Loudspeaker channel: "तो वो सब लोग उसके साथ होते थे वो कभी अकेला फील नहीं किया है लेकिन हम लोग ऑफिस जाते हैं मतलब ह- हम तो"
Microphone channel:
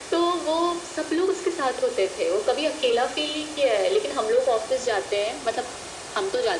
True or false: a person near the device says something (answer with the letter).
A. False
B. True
A